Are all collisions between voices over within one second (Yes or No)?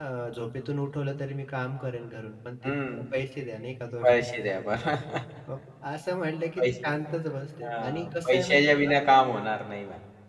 No